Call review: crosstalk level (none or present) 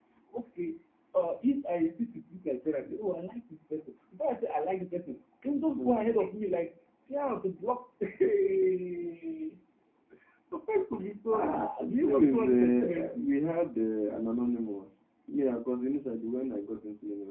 present